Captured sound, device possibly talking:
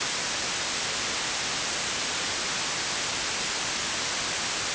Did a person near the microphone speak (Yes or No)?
No